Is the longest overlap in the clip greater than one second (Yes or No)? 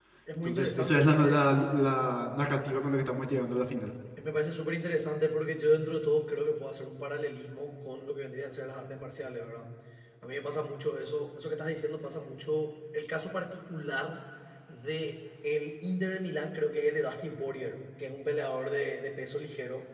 Yes